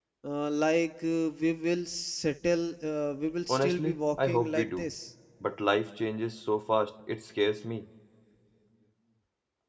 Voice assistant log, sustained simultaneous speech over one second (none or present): present